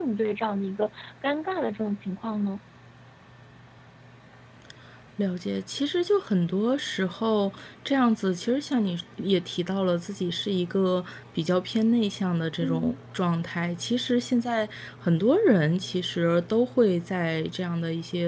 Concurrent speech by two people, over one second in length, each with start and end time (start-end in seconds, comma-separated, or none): none